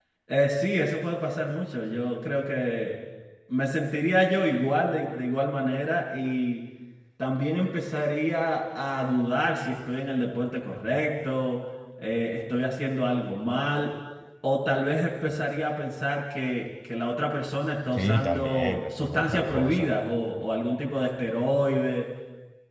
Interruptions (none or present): present